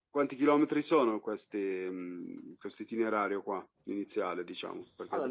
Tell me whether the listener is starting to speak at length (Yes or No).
Yes